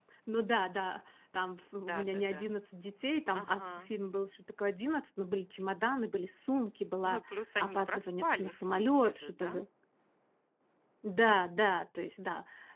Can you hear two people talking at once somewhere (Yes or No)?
Yes